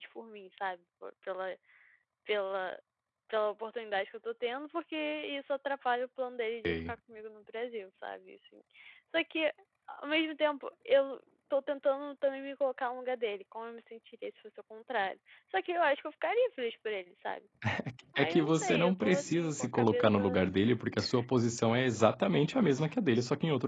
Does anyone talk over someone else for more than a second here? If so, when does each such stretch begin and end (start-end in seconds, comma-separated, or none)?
18.1-20.2